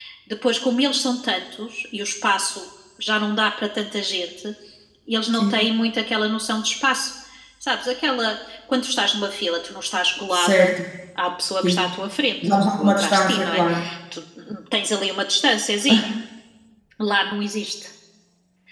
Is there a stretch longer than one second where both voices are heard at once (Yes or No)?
Yes